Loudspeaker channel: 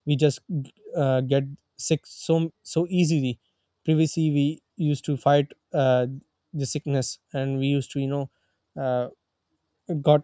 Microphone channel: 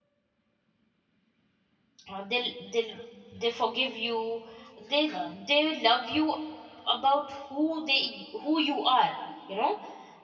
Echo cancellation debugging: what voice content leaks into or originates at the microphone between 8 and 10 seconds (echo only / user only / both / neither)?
user only